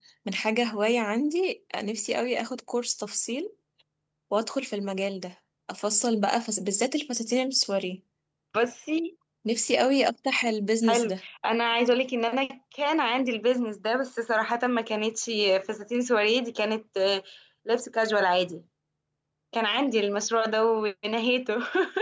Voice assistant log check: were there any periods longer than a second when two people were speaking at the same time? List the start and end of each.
none

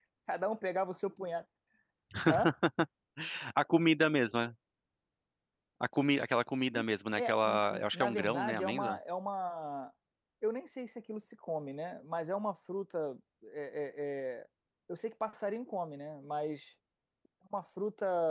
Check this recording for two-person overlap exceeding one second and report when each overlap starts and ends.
7.2-9.0

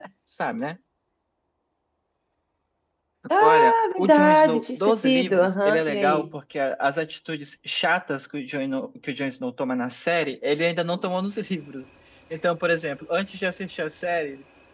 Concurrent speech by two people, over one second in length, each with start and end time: 3.4-6.2

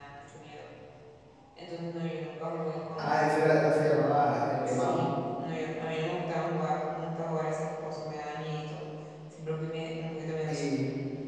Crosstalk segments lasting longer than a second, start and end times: none

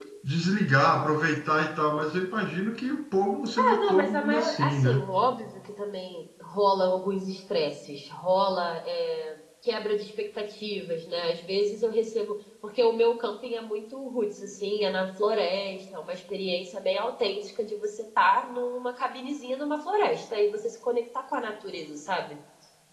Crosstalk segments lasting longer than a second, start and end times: 3.6-5.0

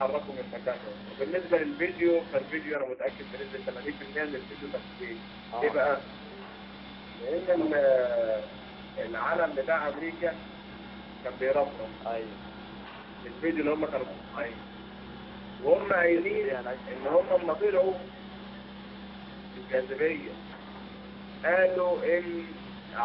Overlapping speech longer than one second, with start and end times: 15.8-17.9

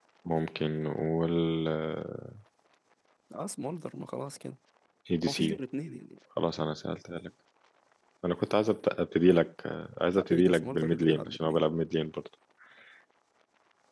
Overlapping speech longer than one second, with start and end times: 10.1-11.6

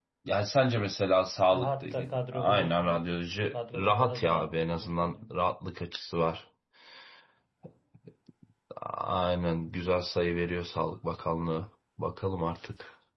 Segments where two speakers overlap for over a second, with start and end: 1.5-3.0, 3.7-5.3

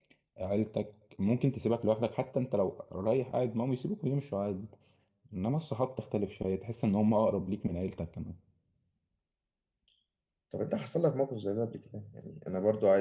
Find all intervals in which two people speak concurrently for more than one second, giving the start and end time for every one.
none

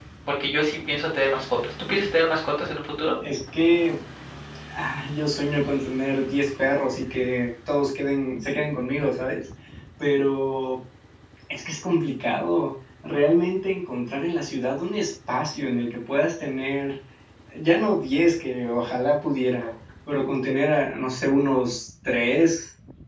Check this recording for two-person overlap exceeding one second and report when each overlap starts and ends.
none

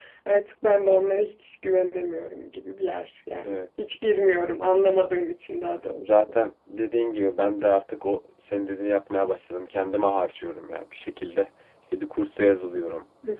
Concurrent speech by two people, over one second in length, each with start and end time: none

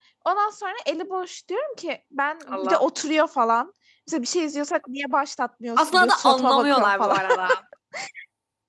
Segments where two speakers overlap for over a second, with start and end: 5.8-7.2

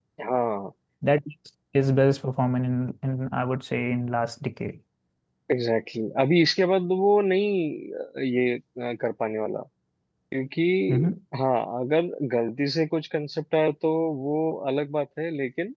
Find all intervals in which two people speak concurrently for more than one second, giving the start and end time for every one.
none

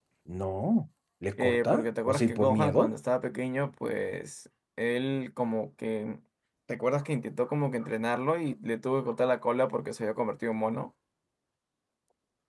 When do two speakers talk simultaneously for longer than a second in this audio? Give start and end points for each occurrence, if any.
1.4-2.9

